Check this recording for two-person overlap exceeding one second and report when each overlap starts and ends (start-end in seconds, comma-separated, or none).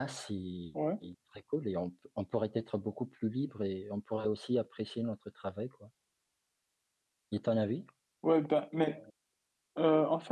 none